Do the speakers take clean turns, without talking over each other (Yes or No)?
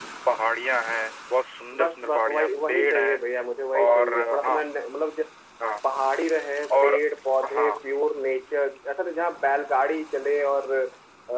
No